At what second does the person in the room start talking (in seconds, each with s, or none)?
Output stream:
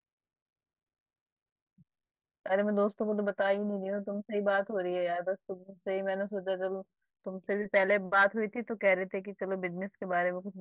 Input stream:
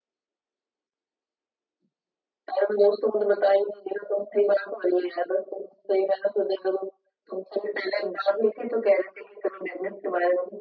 none